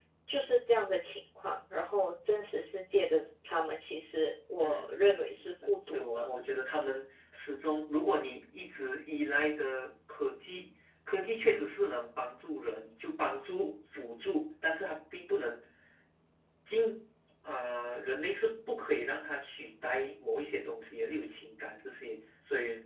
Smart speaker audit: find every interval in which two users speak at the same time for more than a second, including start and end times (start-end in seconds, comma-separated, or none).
4.6-6.3